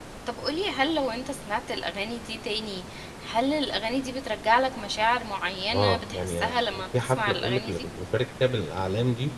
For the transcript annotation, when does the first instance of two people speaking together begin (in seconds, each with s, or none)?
5.7 s